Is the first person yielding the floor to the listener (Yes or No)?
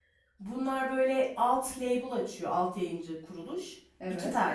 No